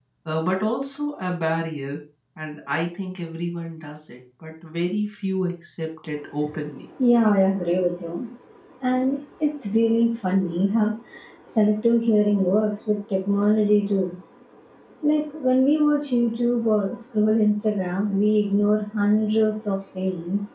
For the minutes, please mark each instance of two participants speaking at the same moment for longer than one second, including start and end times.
none

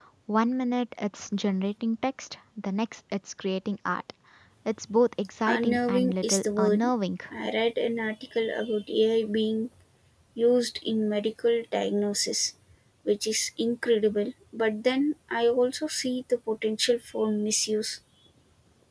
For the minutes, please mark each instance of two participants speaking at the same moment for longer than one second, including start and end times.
5.4-6.9

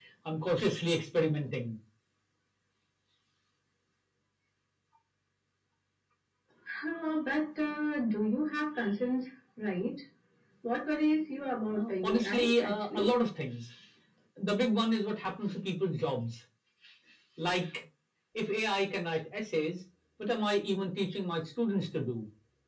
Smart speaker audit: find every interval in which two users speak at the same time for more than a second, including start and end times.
11.7-13.1

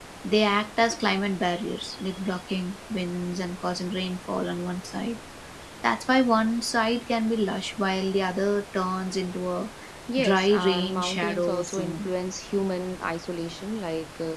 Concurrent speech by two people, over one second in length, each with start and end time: 10.2-12.1

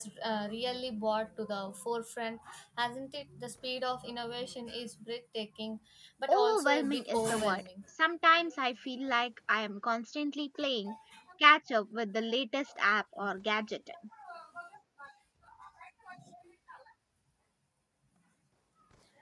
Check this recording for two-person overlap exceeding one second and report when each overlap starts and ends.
6.3-7.6

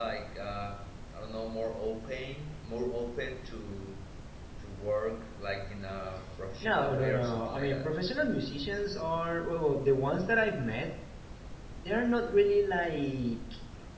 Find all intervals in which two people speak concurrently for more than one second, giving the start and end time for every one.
6.6-7.9

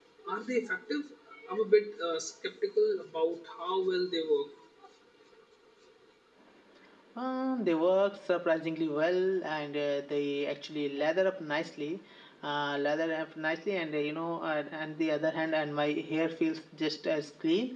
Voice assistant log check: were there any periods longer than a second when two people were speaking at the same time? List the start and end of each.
none

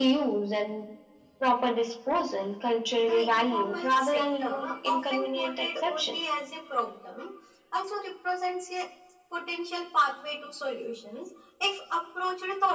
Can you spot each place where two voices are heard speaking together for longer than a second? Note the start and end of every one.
3.0-6.1

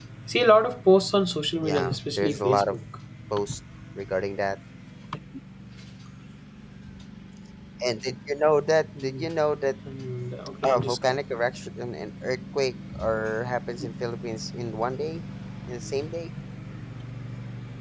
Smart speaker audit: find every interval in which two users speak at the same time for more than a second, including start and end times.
1.6-2.8

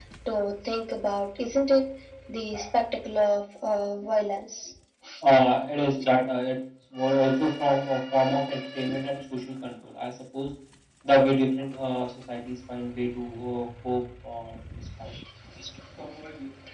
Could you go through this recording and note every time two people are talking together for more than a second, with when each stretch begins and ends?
none

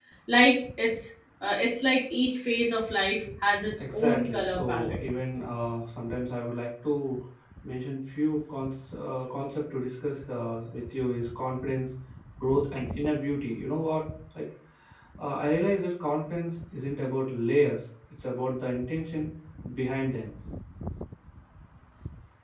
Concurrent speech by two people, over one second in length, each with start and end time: 3.8-5.0

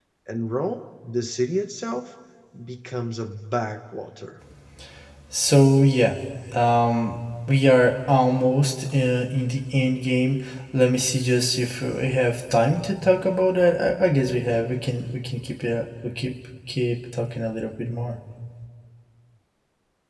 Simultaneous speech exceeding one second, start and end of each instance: none

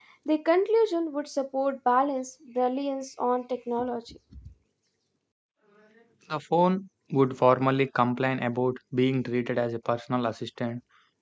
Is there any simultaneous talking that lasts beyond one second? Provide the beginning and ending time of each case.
none

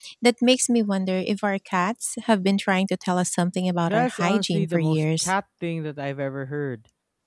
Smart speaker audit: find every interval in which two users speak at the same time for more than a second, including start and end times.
3.9-5.3

